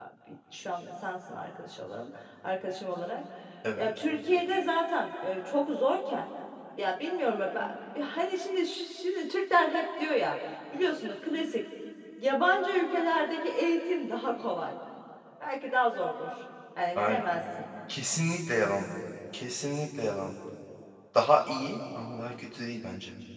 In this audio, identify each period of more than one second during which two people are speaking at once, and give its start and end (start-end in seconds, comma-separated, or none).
none